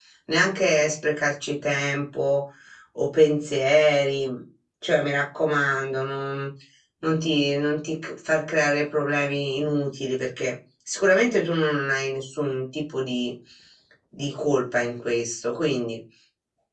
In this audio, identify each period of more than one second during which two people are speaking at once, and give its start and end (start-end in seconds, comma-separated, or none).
none